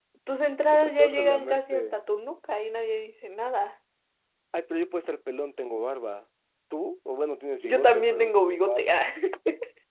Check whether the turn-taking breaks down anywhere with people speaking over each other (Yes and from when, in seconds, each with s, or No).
Yes, from 0.7 s